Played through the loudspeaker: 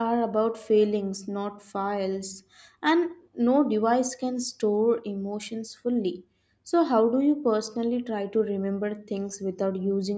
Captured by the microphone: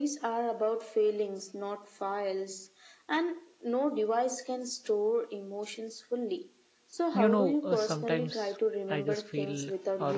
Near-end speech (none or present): present